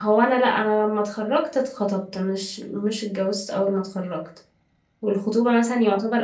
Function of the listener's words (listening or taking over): listening